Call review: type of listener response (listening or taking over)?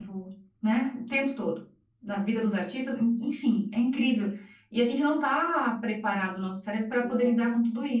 listening